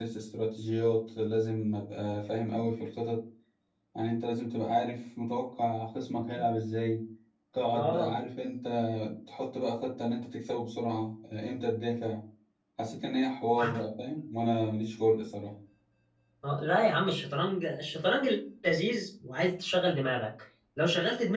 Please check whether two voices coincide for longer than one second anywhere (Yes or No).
No